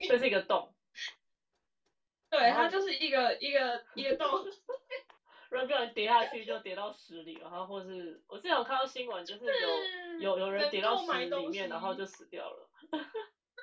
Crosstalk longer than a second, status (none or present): present